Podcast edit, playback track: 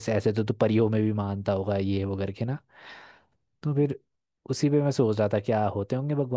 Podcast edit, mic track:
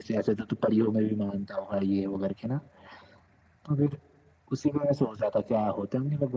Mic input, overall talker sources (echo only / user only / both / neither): echo only